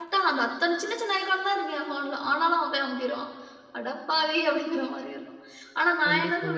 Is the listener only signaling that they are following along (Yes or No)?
Yes